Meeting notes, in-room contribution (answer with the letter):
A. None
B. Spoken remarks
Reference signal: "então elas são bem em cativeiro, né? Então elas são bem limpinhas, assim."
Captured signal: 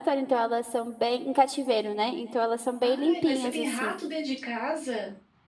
B